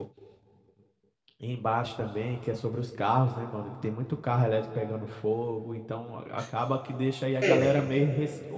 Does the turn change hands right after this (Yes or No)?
No